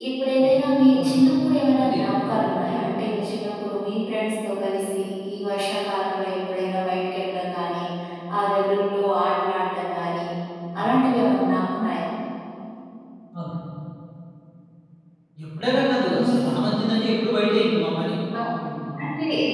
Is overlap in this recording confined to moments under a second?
Yes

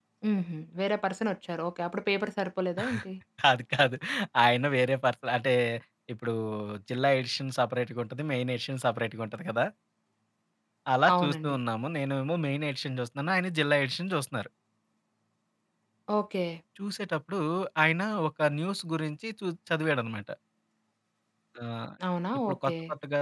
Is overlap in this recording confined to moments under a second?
Yes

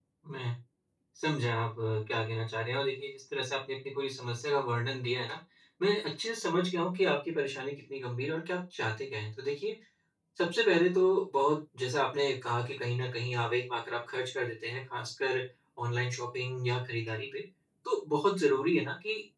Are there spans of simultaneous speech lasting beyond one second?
No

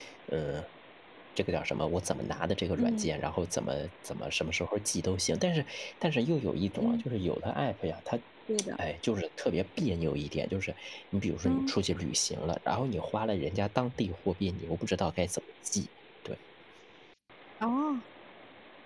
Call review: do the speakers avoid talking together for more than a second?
Yes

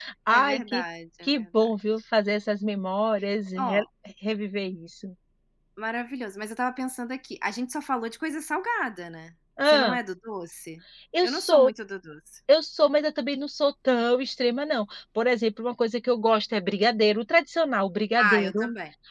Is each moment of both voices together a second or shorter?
Yes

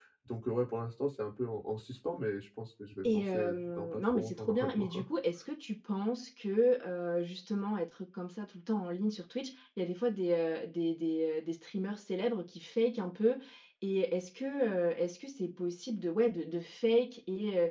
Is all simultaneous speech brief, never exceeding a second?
No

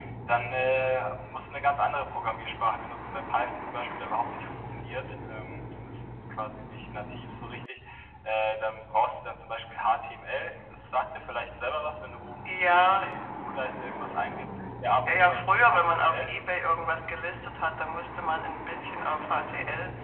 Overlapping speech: Yes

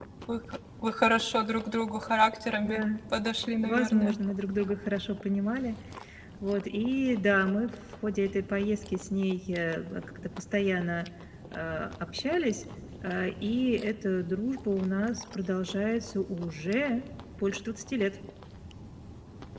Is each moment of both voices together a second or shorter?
Yes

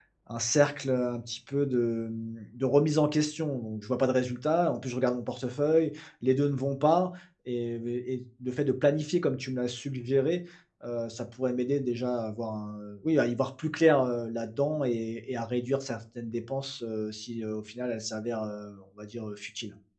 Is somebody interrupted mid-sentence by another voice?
No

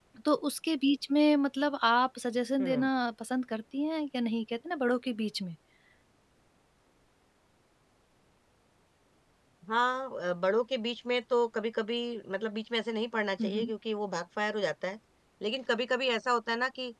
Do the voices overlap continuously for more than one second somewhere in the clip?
No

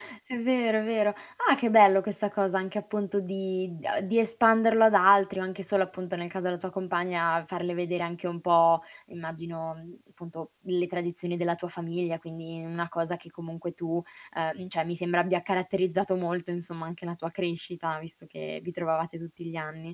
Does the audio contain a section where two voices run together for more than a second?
No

